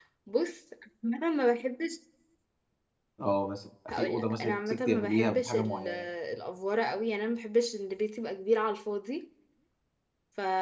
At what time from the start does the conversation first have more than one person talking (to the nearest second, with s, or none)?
4 s